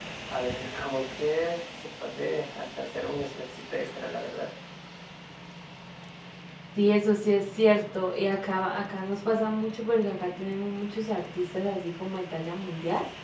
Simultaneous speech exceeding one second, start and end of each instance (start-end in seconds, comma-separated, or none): none